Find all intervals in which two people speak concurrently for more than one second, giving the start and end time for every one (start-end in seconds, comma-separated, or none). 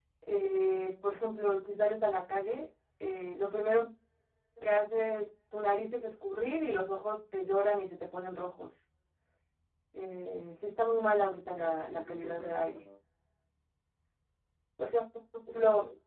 11.5-12.8